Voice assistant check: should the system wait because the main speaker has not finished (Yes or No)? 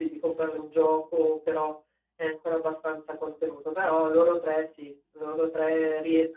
Yes